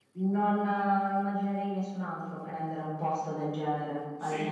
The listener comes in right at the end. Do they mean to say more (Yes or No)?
Yes